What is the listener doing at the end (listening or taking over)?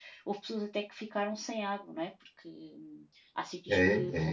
taking over